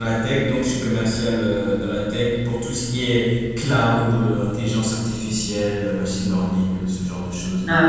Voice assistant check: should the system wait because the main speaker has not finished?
No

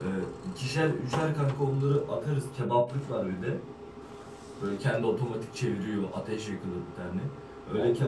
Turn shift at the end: No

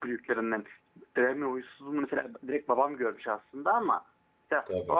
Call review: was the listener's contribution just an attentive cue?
Yes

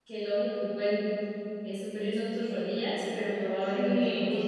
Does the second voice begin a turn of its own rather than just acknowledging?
Yes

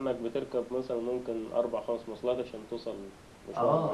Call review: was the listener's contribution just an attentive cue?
No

